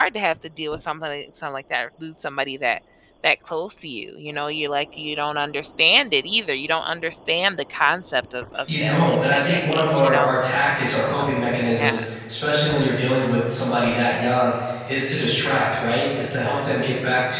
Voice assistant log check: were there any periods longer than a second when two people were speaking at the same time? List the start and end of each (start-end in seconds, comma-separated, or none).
8.8-10.4